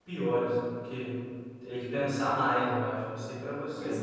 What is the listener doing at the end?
taking over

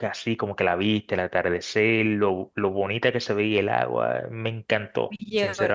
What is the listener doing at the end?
taking over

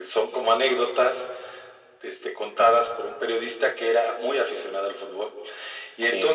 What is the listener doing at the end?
listening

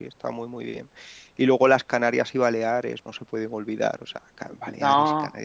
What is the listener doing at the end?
listening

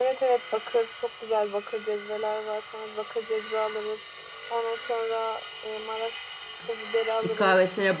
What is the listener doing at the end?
taking over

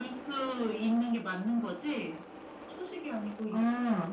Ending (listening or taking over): taking over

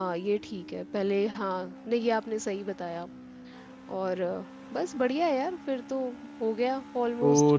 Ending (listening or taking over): taking over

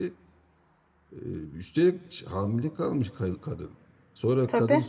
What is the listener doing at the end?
listening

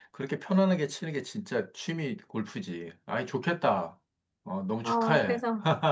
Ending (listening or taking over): taking over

